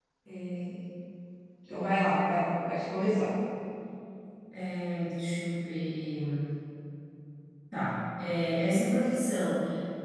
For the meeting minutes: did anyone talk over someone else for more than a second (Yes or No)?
No